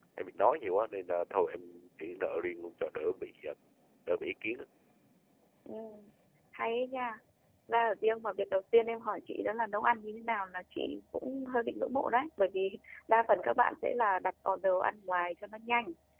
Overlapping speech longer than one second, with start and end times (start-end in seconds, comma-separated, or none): none